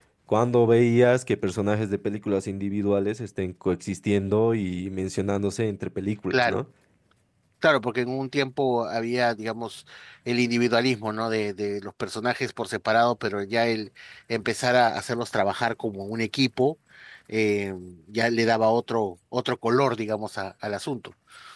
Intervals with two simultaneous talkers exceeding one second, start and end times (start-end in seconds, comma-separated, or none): none